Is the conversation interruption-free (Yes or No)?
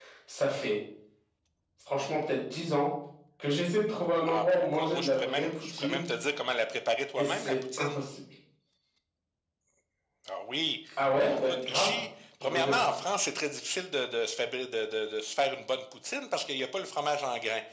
No